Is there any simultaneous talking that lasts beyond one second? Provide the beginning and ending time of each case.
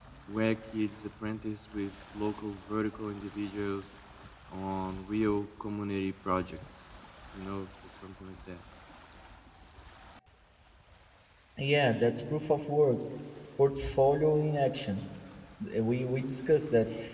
none

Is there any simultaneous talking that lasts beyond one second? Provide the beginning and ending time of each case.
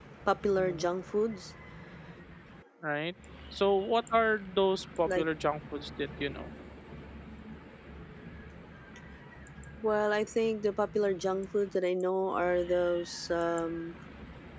none

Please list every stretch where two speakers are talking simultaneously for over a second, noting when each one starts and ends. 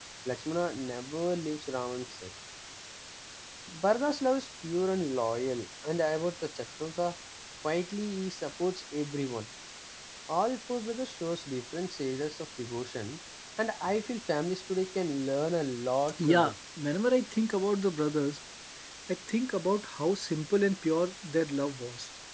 none

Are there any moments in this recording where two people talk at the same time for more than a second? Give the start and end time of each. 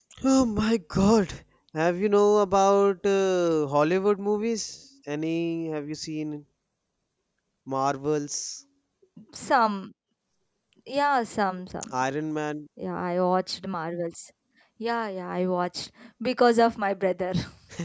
none

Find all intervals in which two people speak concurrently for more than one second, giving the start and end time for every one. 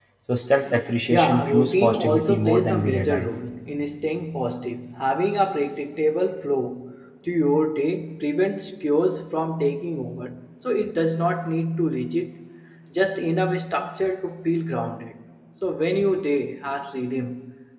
1.1-3.4

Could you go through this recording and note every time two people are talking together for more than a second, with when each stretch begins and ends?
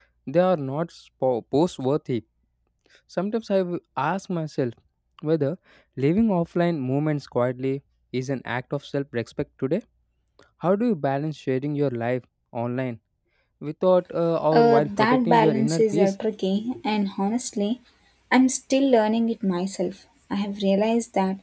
14.5-16.1

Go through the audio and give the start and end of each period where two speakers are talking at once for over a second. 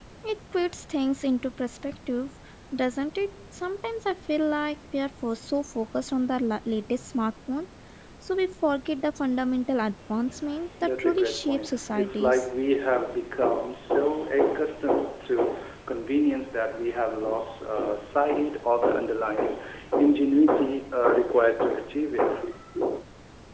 10.8-12.4

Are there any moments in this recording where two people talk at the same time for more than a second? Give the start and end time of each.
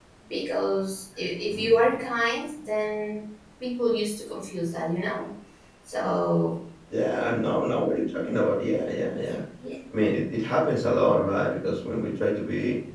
none

